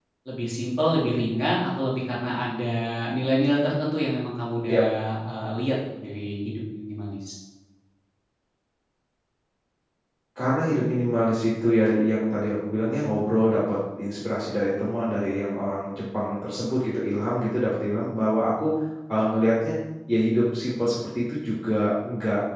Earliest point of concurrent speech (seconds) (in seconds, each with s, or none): none